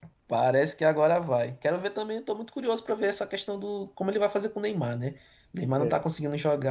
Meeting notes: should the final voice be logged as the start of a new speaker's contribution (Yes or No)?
No